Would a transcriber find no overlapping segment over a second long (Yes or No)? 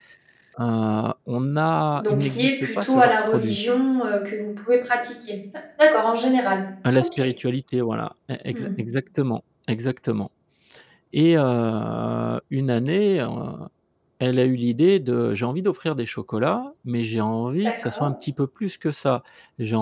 No